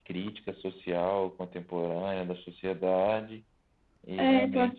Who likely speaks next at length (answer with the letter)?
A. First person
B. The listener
B